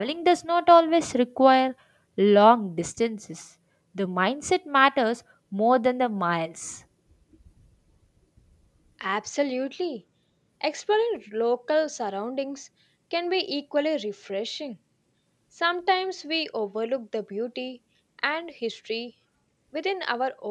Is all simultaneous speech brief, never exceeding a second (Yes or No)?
Yes